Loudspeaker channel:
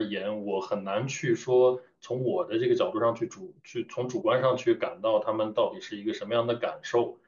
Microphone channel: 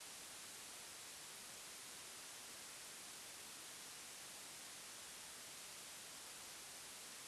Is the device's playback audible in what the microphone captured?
No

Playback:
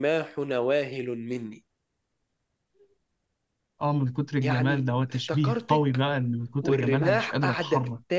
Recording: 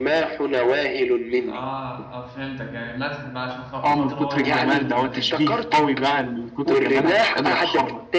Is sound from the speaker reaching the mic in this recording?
Yes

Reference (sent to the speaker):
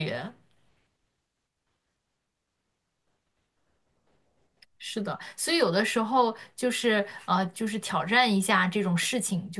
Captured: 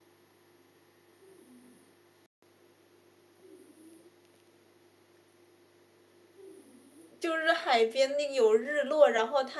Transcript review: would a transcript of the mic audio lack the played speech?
Yes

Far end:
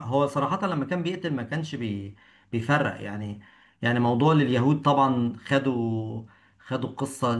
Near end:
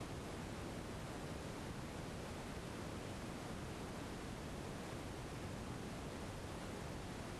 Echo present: No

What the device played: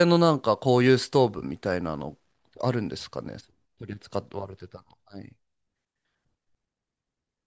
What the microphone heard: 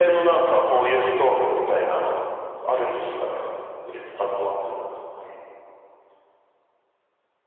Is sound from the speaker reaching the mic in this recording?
Yes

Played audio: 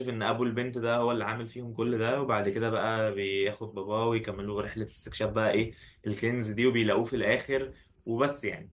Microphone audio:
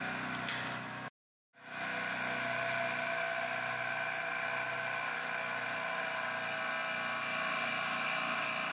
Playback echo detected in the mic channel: No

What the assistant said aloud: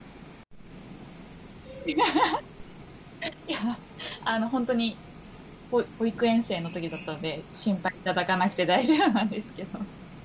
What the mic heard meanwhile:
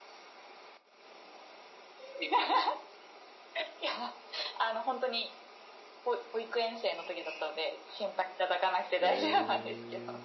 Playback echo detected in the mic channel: Yes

